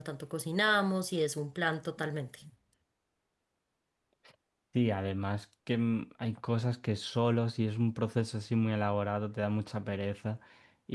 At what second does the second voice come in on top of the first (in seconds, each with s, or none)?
none